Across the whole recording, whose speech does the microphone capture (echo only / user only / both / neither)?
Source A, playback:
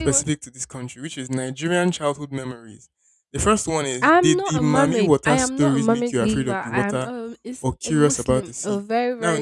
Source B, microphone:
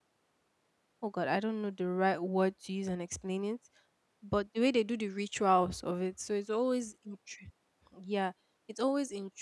user only